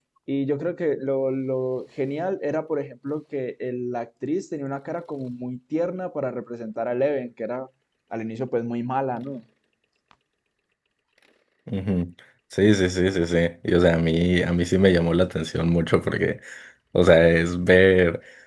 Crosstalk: none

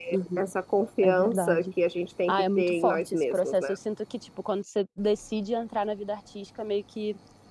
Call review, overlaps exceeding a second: present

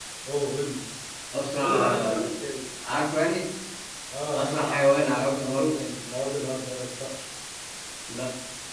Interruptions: present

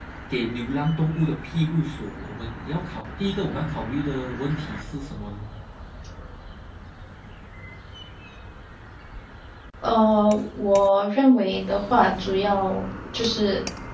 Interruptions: none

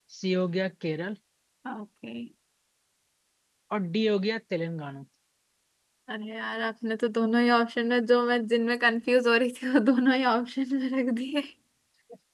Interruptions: none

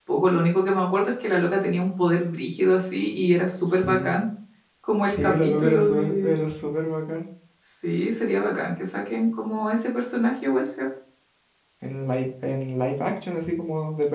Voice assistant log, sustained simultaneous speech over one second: present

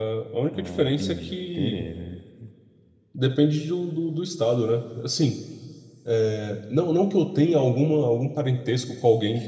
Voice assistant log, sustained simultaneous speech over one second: present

